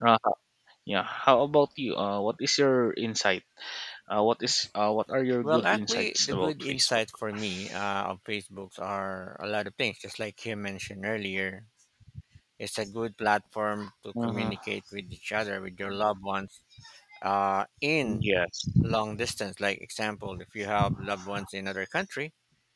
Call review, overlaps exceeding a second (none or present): present